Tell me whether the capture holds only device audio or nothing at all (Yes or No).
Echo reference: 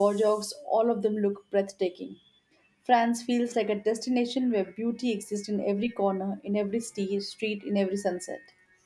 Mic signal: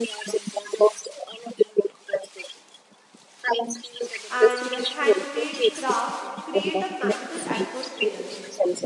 No